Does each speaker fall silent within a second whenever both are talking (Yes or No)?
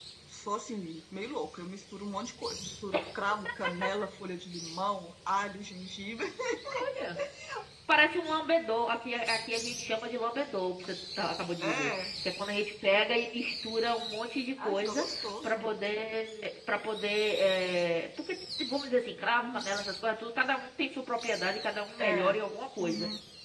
Yes